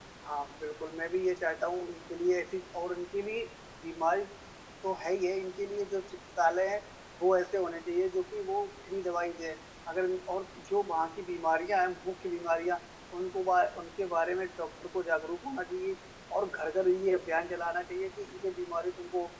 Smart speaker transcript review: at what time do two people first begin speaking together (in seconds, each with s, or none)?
none